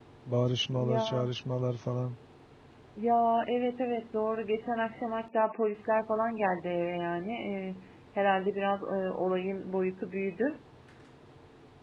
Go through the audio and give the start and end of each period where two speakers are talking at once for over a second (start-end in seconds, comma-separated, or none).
none